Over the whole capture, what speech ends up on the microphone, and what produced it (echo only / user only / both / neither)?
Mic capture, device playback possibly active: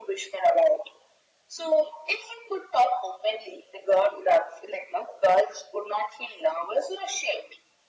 echo only